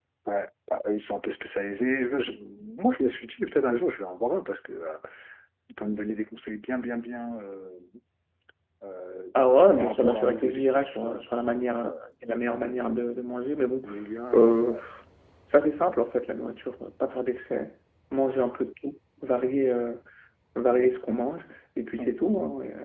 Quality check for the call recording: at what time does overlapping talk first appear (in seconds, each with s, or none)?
9.8 s